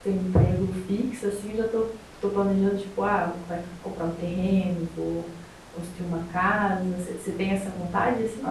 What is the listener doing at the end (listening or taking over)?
taking over